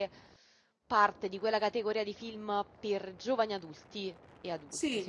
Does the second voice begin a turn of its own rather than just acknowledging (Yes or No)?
Yes